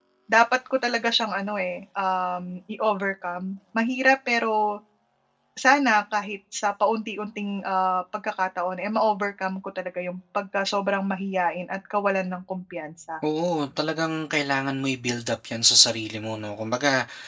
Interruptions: none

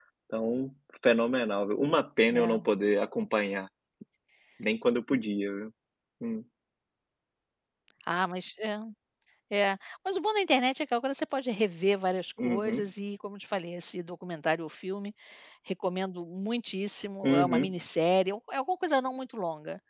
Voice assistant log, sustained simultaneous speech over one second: none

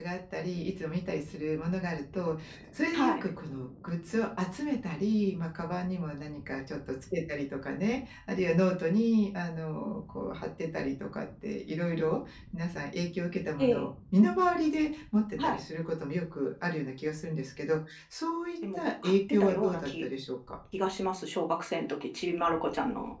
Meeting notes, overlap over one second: present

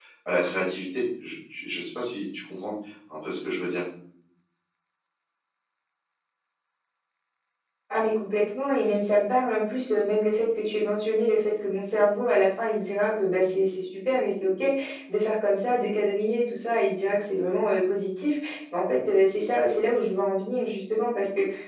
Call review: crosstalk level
none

